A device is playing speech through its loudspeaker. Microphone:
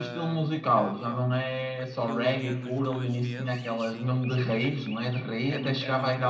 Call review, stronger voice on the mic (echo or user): echo